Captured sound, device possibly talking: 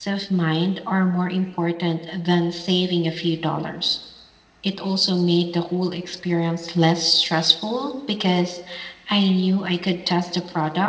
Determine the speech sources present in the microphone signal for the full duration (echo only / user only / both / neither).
user only